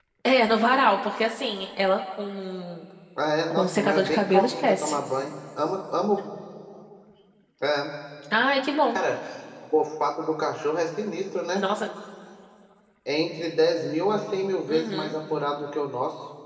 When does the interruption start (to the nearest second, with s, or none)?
4 s